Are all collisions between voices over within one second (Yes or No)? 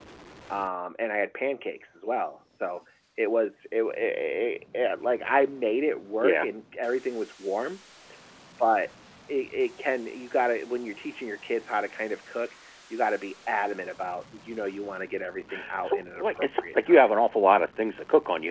No